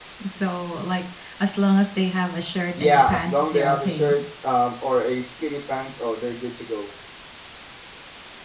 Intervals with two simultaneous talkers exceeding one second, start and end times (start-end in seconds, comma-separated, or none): 2.8-4.1